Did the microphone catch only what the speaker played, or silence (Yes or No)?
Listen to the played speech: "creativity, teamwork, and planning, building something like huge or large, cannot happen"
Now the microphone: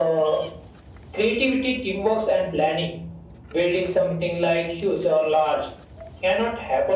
Yes